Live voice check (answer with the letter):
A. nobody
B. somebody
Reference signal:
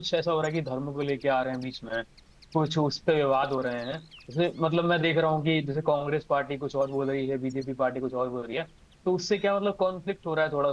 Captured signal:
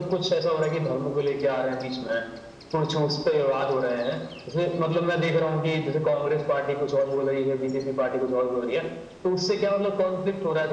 A